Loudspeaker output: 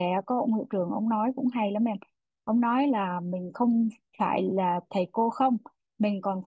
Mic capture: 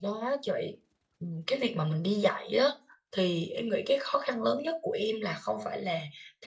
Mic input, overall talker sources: user only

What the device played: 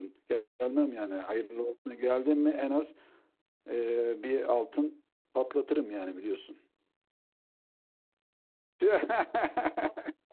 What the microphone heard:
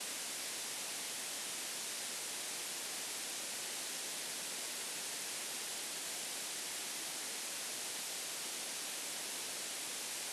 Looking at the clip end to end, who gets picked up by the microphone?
neither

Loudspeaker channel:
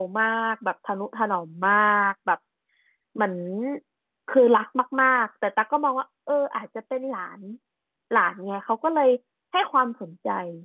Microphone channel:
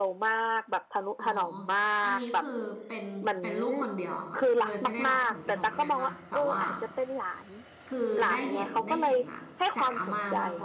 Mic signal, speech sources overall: both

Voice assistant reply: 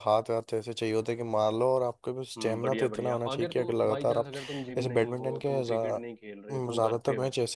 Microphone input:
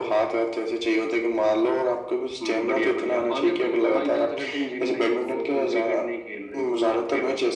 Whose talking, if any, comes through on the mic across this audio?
echo only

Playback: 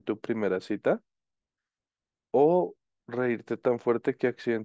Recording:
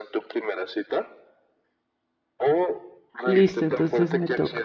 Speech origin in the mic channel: both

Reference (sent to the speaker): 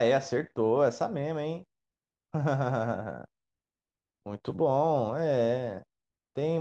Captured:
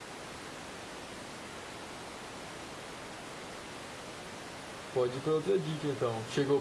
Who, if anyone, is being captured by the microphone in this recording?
user only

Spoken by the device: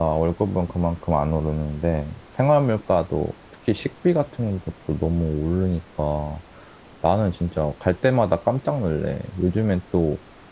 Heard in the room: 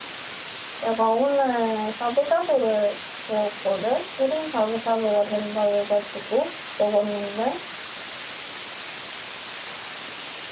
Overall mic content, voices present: user only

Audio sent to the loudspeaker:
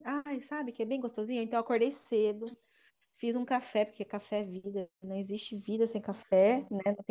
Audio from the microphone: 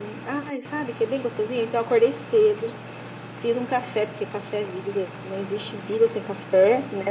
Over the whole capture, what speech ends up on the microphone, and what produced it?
echo only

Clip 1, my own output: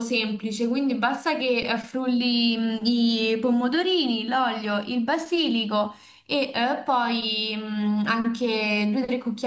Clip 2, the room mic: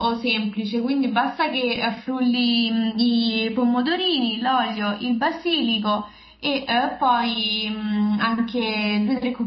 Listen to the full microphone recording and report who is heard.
echo only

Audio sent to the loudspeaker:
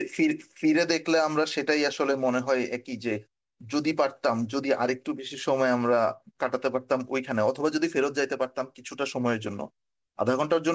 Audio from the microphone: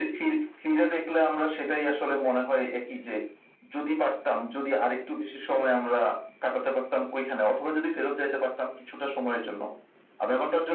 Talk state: echo only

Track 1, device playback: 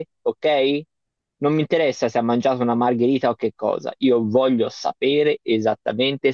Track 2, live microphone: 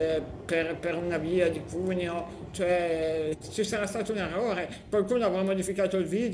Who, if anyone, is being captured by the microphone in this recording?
user only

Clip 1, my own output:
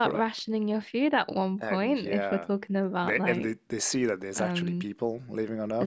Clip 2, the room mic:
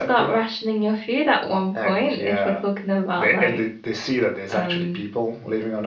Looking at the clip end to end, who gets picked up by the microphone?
echo only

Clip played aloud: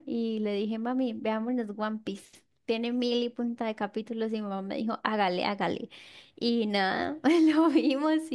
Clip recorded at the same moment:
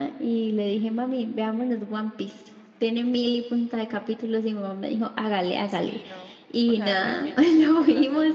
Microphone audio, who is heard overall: both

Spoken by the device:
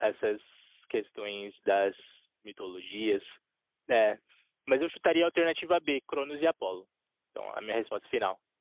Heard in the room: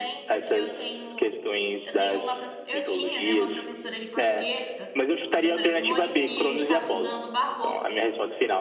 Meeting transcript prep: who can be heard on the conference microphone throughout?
both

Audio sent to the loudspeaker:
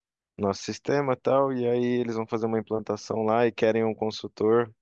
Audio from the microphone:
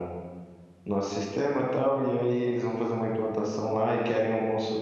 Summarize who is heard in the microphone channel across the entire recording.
echo only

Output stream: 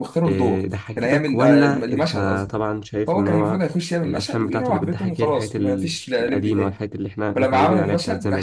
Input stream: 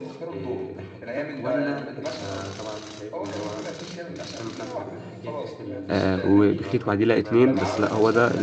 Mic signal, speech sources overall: both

